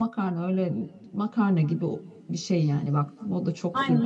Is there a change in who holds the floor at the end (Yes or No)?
Yes